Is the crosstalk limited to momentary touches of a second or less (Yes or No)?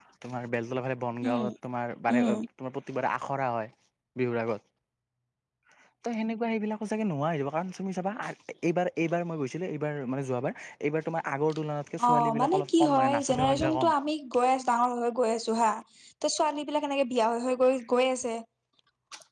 No